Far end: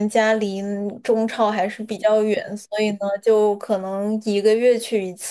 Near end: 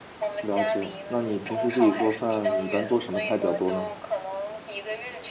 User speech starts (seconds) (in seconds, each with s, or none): 0.4 s